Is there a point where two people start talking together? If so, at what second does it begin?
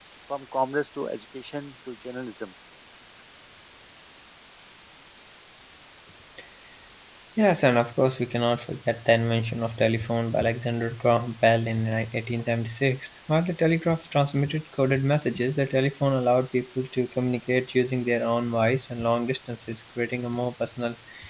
none

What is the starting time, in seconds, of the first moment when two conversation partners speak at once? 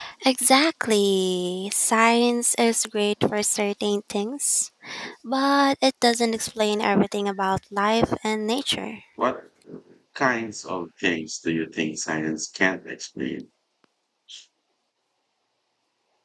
none

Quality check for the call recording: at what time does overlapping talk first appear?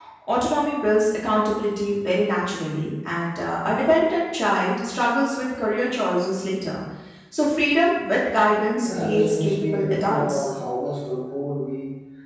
8.8 s

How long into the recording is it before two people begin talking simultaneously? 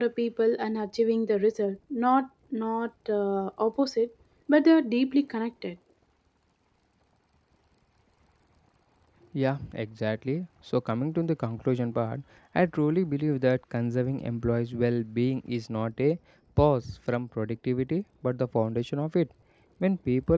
none

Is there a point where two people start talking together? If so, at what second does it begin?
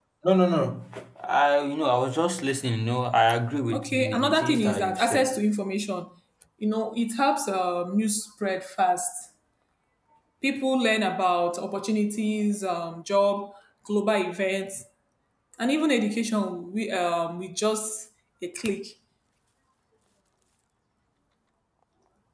3.7 s

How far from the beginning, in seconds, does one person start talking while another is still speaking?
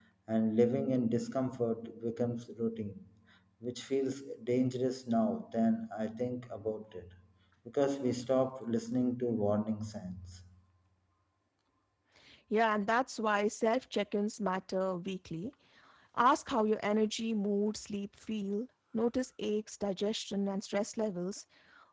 none

